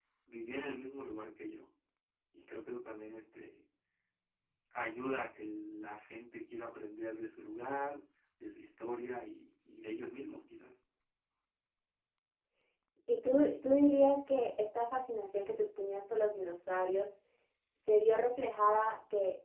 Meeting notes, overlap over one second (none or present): none